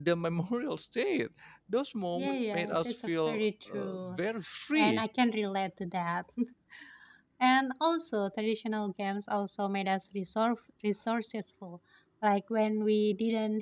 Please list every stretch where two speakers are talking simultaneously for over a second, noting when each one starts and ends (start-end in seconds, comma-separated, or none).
2.1-4.2